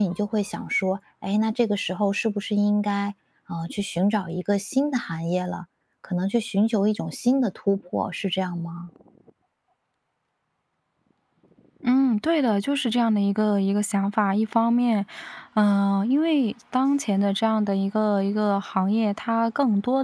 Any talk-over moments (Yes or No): No